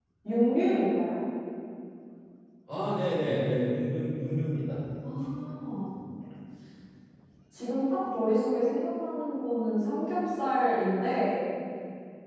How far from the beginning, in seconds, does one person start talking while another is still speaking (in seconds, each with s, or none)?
none